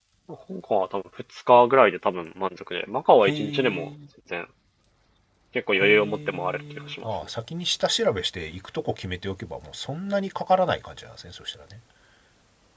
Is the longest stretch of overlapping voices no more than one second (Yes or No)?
No